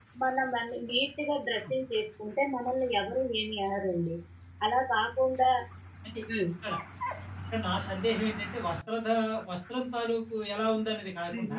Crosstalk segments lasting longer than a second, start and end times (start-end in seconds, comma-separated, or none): none